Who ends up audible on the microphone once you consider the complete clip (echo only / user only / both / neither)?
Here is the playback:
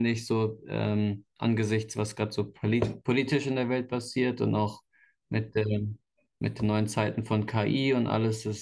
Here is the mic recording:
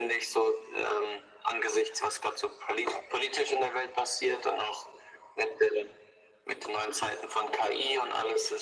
echo only